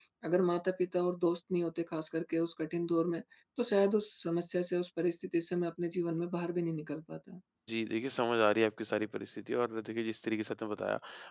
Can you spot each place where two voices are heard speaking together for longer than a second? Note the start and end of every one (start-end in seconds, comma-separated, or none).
none